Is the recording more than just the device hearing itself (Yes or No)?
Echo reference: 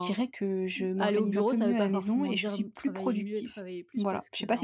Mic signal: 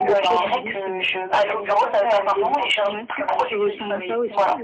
Yes